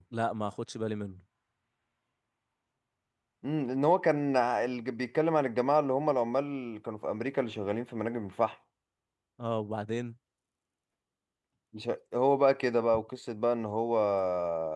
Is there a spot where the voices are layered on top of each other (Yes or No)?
No